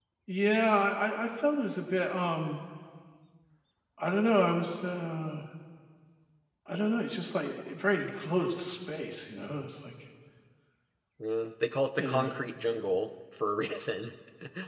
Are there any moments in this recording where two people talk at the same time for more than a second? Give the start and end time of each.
none

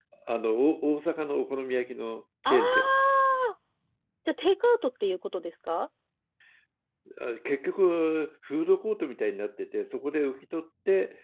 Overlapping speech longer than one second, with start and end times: none

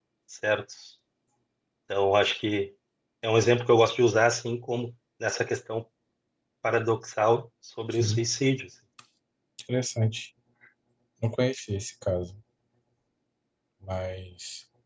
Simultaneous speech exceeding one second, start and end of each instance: none

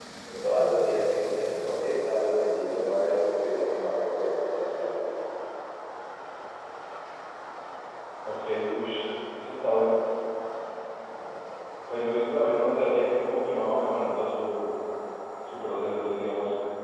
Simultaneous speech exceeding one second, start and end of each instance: none

